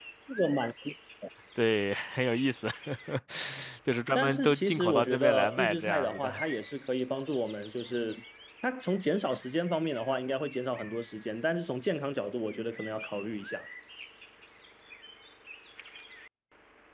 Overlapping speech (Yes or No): Yes